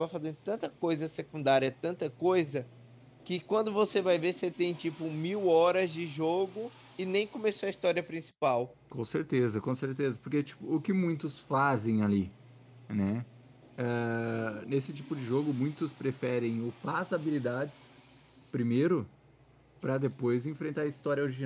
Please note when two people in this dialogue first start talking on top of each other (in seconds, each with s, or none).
none